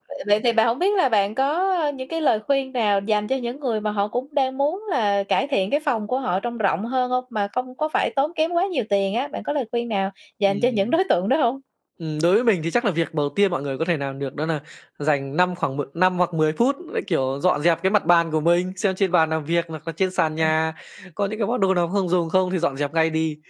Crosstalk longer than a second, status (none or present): none